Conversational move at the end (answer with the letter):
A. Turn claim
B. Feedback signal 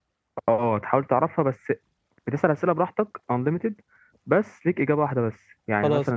B